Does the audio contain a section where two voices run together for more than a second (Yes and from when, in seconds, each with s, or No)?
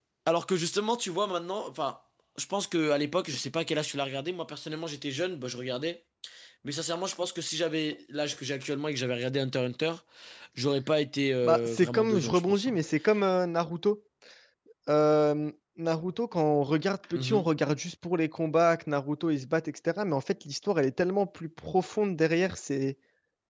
Yes, from 11.4 s